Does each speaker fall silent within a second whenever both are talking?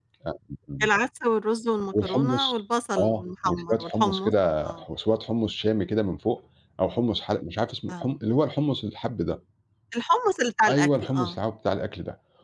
No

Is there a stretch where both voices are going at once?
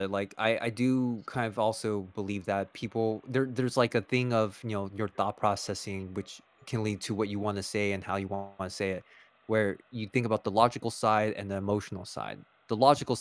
No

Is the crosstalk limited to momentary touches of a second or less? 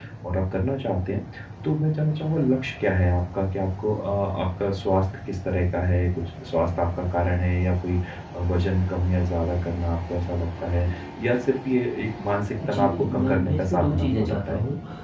No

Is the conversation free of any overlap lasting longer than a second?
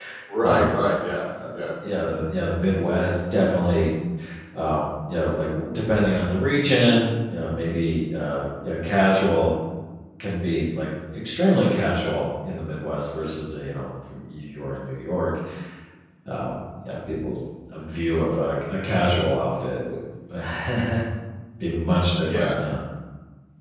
Yes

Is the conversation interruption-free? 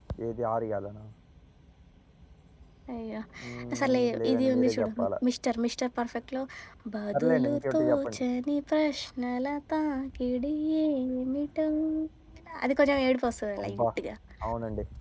No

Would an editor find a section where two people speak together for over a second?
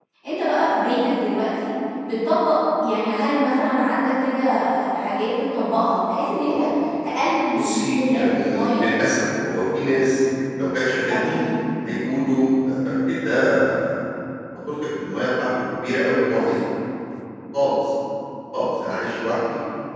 Yes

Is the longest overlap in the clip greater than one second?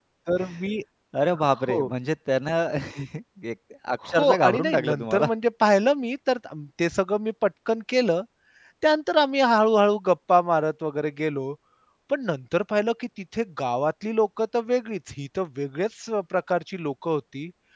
Yes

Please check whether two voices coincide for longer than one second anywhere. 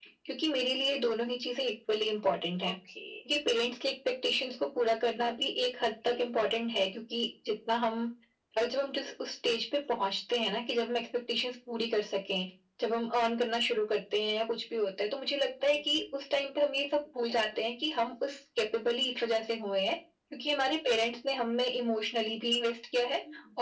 No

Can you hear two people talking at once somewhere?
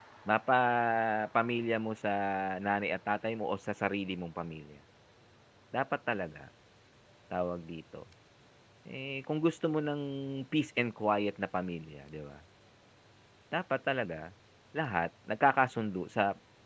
No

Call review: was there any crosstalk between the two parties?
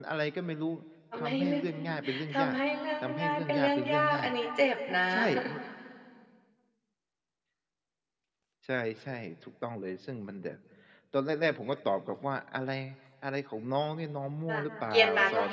Yes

